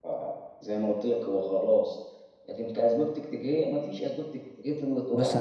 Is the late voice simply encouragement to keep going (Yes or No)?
No